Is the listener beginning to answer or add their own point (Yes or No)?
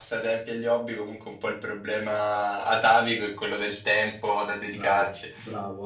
Yes